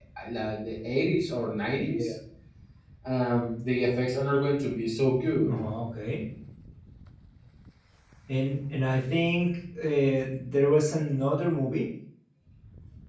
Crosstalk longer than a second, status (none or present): none